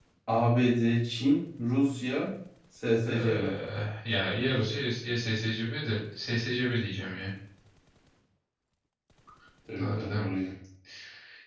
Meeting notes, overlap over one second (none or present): none